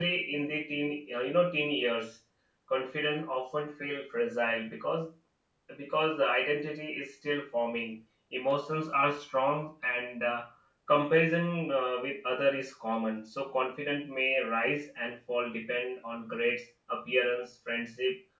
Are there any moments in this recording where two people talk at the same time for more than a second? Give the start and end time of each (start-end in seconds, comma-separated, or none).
none